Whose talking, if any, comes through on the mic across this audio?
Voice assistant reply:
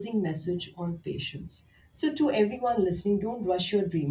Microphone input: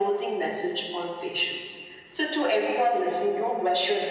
echo only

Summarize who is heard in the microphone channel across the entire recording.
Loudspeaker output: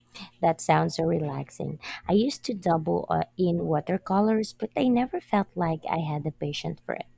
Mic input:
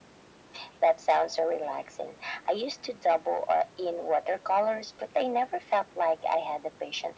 echo only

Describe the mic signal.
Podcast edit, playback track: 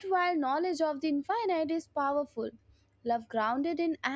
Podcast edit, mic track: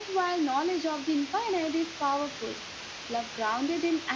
echo only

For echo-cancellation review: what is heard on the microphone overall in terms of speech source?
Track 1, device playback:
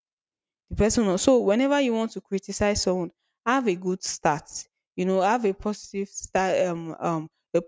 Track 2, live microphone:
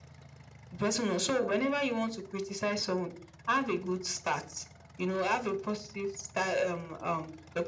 echo only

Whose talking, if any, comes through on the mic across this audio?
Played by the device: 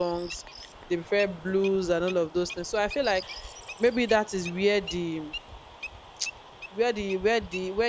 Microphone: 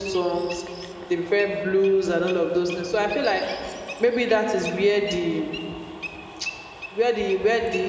echo only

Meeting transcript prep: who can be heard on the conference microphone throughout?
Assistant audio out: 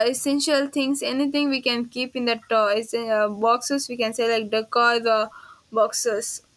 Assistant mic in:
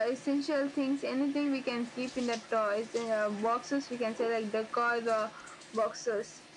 echo only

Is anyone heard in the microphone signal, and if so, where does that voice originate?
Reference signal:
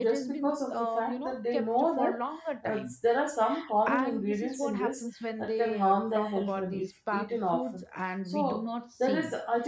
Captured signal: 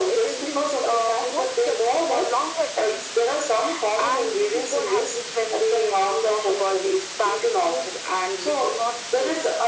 echo only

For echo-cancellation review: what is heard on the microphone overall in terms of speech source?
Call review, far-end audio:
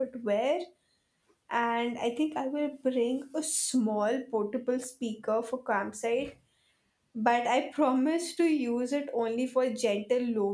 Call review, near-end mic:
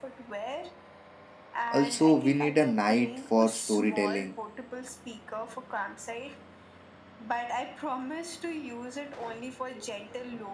both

